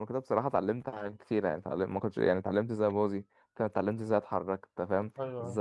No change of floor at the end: Yes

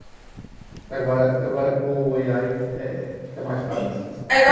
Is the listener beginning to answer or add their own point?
Yes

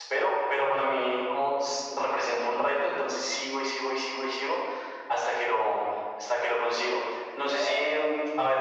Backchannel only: Yes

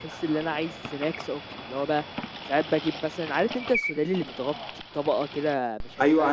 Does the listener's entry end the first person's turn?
Yes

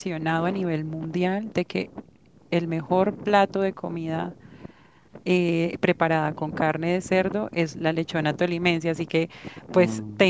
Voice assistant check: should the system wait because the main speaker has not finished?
Yes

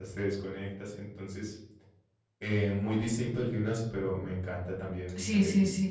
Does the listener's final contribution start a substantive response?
Yes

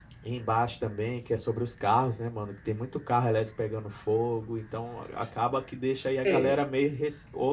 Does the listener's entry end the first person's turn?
No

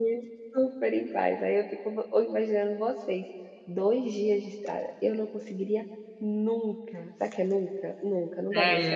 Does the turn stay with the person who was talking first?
No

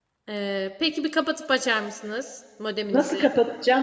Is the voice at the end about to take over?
Yes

